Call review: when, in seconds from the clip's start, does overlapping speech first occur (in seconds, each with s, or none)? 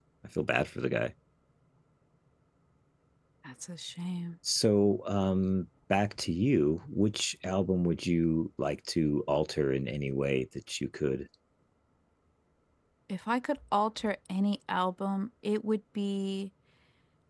none